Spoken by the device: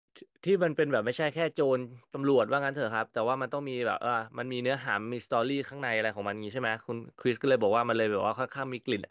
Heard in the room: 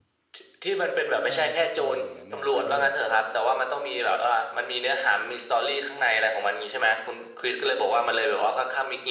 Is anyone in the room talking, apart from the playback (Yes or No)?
Yes